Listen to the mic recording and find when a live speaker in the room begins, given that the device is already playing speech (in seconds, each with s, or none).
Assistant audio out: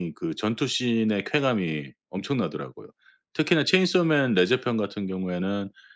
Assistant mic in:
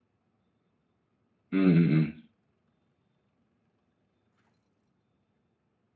1.5 s